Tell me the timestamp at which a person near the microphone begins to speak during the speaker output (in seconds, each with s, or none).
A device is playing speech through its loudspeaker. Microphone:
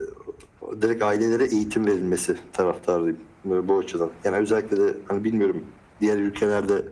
none